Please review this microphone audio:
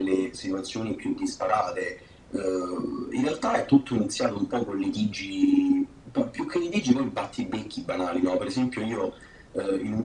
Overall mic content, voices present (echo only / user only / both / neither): echo only